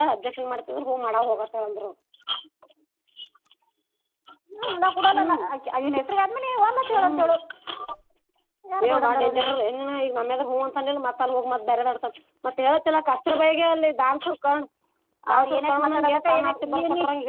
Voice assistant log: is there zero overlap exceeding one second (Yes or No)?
No